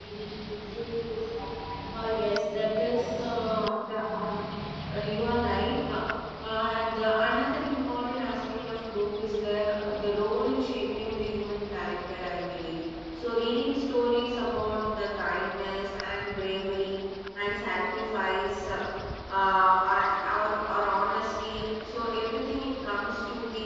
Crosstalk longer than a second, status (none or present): present